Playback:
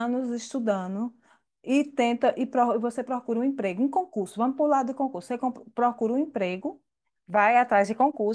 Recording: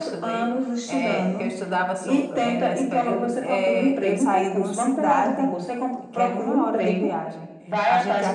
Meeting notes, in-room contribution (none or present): present